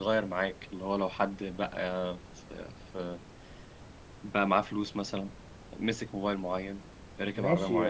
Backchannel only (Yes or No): No